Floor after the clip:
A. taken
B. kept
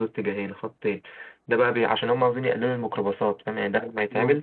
B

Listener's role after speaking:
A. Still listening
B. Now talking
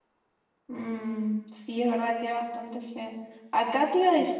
A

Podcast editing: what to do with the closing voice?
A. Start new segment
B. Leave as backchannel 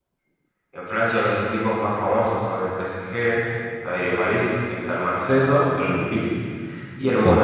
B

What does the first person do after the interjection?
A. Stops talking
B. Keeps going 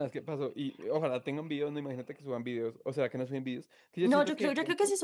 A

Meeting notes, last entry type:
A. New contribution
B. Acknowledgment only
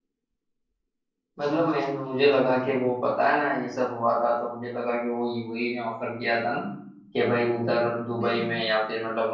B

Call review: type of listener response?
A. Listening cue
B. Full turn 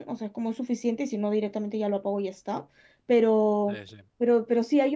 A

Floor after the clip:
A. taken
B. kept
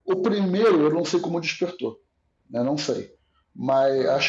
B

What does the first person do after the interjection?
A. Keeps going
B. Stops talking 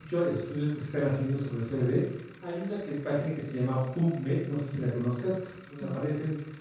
A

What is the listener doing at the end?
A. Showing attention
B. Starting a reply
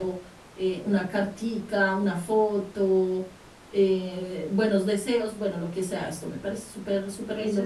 B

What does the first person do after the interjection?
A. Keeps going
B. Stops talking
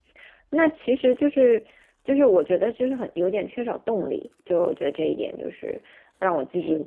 A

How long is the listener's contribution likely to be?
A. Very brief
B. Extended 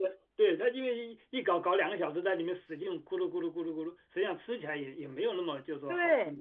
B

